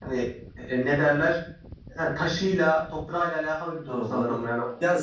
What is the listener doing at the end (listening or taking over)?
taking over